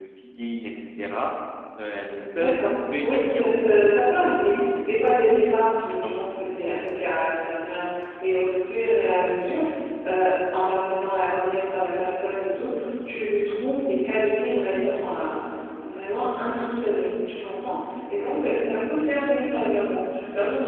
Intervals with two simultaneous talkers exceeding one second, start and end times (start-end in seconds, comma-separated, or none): 2.4-3.6